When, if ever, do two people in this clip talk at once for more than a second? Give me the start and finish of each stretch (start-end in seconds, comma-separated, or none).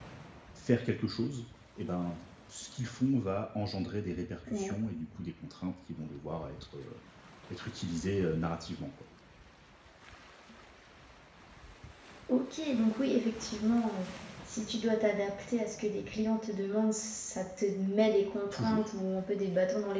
none